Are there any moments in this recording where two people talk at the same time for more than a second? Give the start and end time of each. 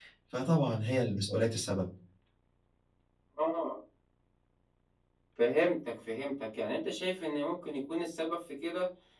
none

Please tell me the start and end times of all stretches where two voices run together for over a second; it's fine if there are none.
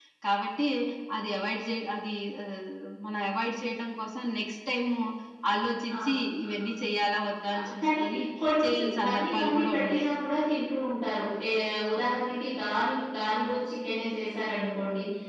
8.6-10.1

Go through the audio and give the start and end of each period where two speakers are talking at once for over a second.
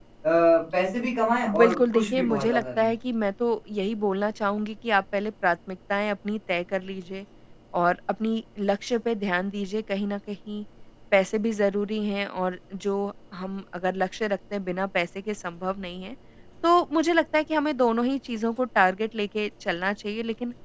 1.6-2.9

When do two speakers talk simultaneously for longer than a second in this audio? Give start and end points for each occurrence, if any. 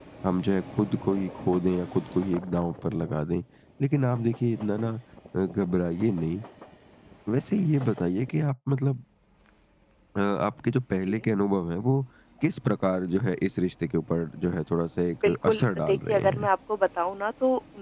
15.2-16.5

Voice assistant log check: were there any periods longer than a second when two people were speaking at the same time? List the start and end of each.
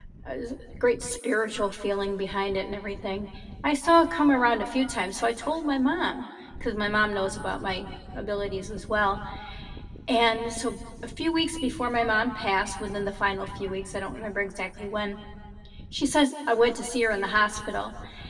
none

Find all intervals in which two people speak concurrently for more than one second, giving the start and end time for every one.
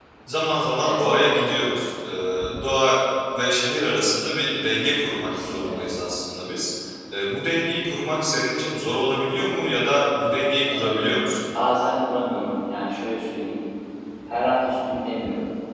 none

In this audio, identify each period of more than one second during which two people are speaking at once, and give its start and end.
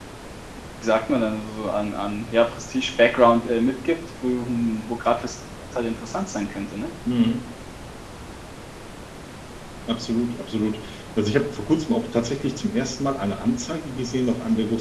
none

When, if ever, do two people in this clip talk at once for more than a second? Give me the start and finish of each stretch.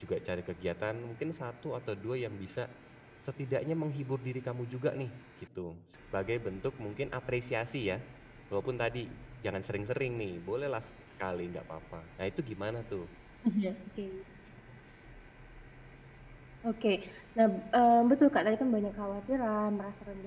none

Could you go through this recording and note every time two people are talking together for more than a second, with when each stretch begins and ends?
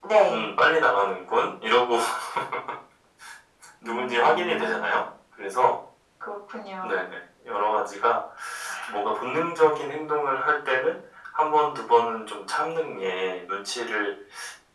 3.8-5.0

